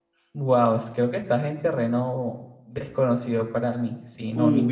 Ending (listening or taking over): taking over